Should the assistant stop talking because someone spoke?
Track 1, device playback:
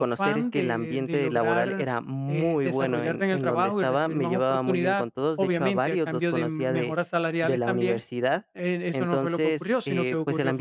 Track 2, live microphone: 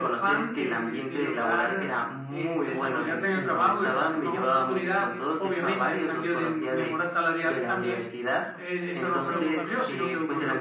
Yes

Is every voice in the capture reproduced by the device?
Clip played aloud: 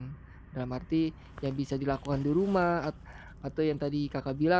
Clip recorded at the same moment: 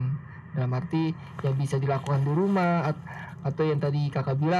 Yes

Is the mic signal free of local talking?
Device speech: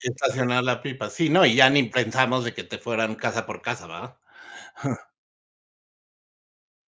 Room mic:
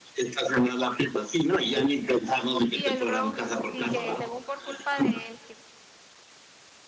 No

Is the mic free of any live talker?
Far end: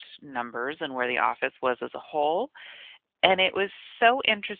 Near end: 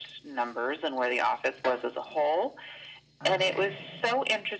No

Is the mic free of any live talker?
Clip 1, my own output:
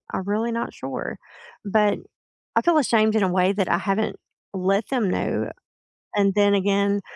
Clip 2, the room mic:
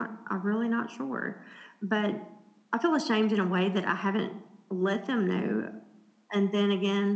Yes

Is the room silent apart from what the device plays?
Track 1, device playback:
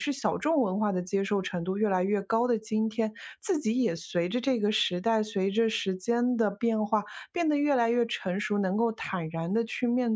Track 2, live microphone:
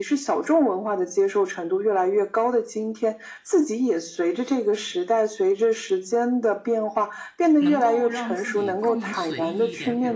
No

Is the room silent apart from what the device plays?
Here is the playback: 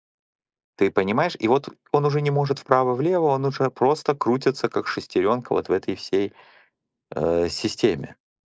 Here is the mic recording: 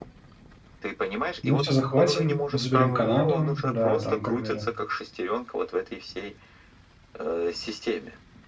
No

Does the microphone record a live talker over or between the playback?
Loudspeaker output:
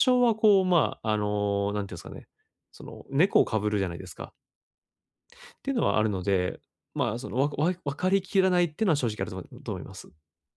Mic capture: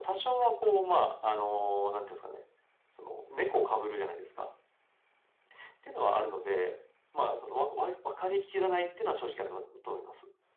No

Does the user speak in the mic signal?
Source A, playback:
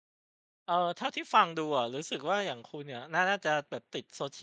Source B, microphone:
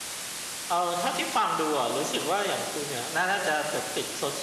No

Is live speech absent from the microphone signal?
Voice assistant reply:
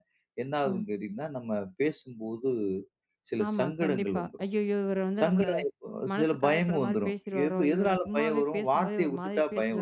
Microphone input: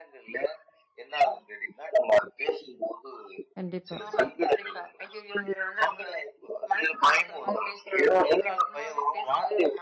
No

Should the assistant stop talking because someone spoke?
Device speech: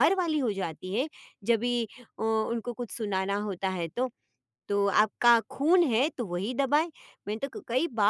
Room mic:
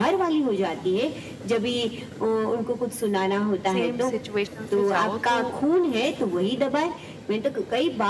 Yes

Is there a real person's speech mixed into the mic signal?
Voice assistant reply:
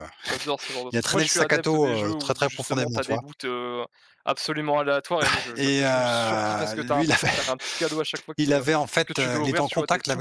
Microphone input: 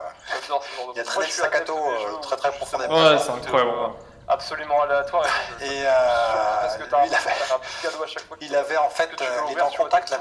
Yes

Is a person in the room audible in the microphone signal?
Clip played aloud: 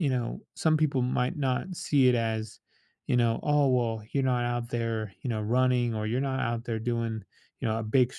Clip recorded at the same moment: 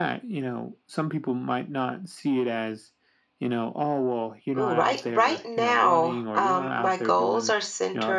Yes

